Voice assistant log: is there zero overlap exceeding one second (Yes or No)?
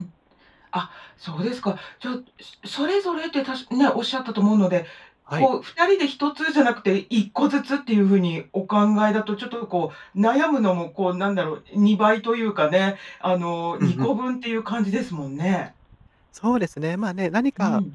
Yes